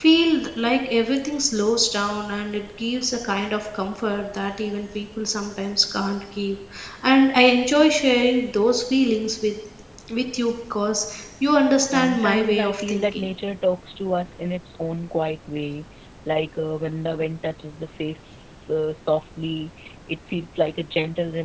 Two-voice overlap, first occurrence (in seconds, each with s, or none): 11.8 s